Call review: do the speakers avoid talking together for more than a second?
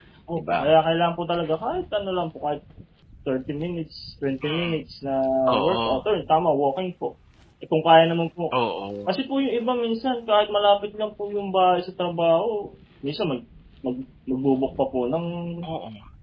Yes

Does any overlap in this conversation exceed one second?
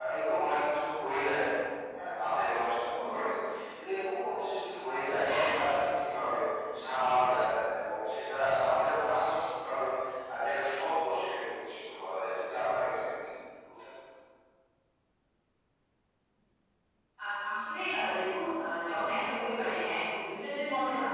No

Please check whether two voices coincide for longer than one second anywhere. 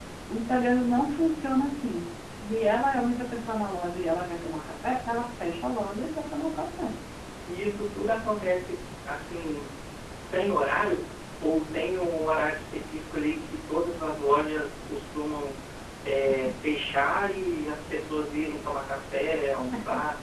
No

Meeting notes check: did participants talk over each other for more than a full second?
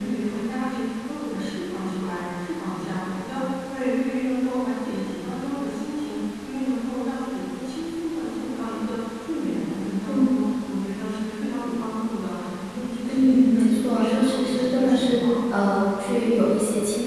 Yes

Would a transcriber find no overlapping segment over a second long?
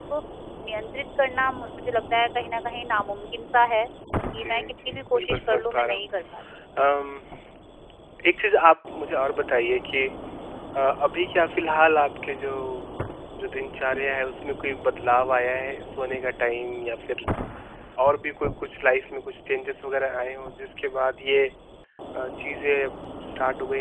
No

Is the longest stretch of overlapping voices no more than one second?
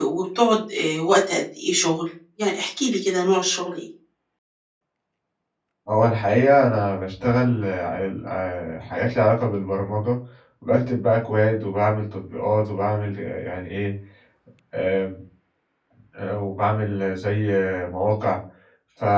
Yes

